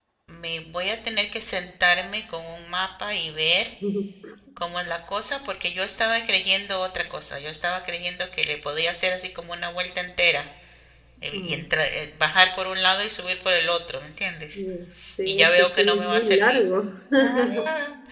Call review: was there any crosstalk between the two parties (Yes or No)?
Yes